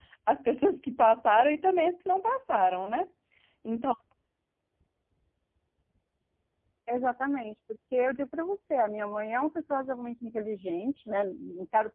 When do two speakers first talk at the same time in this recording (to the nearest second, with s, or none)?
none